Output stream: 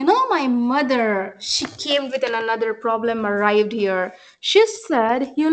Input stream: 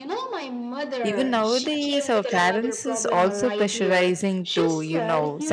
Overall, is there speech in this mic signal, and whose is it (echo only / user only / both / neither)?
both